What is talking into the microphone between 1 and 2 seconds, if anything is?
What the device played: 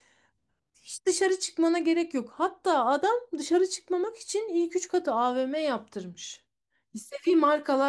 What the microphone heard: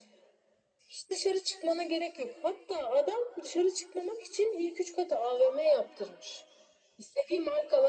echo only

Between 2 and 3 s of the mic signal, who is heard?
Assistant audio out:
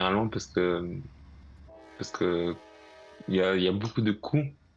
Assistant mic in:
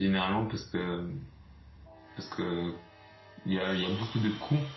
echo only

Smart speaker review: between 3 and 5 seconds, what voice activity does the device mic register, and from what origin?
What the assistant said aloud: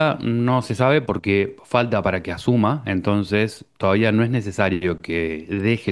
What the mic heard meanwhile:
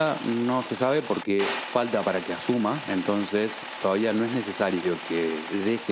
echo only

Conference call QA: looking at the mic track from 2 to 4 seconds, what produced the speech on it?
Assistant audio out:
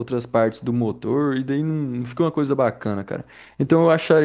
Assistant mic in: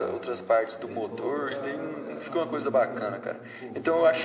both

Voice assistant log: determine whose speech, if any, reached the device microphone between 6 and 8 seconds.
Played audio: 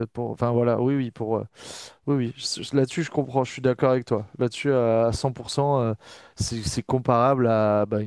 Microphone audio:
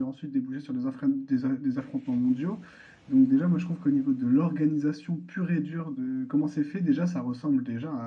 user only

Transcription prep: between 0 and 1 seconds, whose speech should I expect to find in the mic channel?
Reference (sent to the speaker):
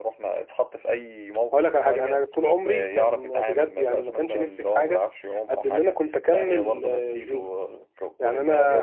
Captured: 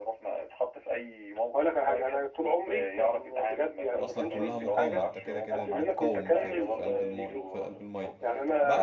echo only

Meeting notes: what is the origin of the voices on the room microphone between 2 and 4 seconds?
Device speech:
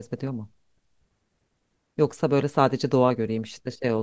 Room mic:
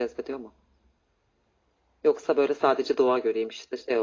echo only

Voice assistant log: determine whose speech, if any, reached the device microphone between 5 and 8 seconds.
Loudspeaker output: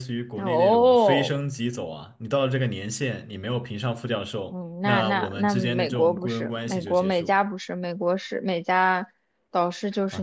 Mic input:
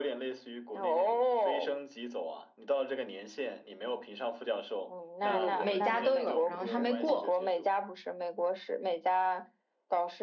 both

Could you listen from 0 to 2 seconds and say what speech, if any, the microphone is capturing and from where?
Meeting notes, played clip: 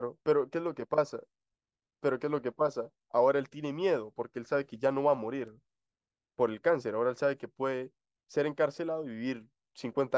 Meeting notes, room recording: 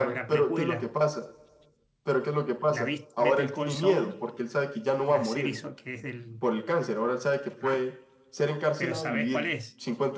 both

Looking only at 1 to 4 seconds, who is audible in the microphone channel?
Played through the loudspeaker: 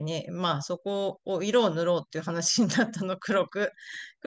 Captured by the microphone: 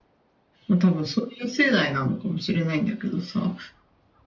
user only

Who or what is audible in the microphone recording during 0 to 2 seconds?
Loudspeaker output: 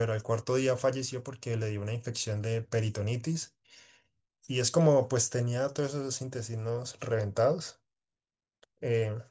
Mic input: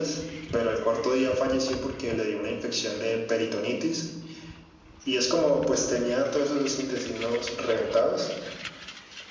echo only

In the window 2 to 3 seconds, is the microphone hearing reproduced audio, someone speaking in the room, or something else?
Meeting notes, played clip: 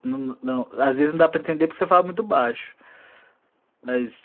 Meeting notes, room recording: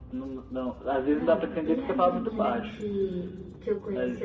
both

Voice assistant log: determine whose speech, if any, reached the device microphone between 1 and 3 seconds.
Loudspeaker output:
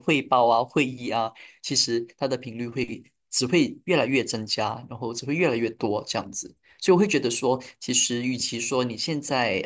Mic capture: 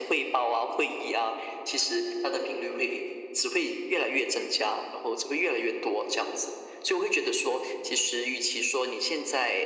echo only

